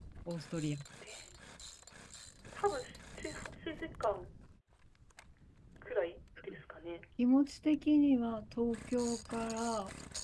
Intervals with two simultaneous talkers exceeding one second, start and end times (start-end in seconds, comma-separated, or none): none